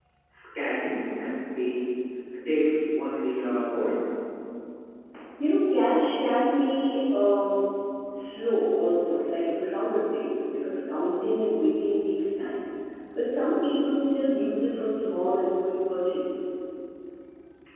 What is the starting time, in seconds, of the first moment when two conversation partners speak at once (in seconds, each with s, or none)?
none